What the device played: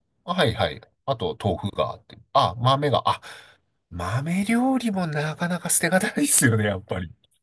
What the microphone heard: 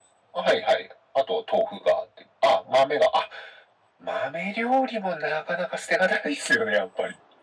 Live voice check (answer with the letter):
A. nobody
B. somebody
A